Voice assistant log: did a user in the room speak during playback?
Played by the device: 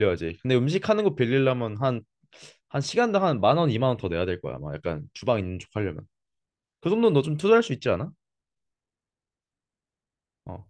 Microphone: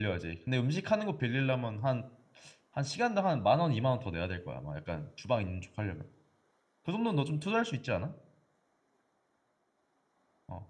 No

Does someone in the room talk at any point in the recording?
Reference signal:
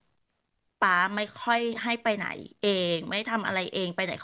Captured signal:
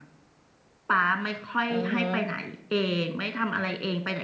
Yes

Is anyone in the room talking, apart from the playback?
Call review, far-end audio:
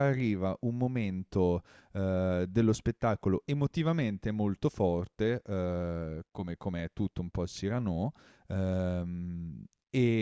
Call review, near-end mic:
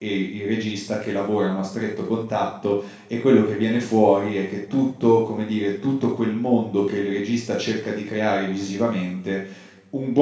Yes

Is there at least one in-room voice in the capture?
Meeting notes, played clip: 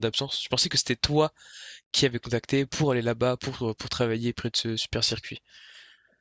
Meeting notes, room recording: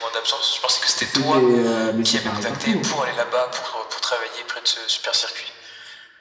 Yes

